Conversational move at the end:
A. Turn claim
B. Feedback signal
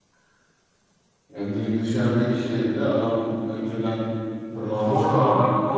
A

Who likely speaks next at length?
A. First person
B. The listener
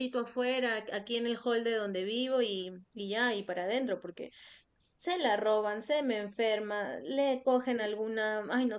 A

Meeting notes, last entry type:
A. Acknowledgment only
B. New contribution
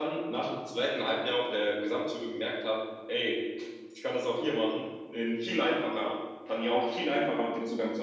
A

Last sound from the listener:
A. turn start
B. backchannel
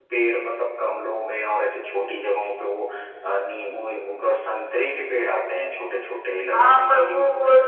A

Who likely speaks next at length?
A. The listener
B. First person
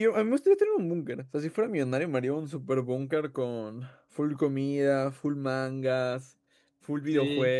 A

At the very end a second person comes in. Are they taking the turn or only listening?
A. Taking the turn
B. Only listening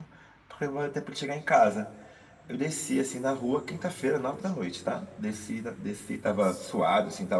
B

